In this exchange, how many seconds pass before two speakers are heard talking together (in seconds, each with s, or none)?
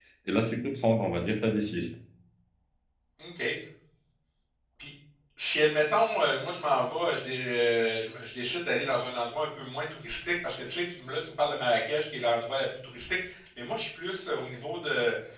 none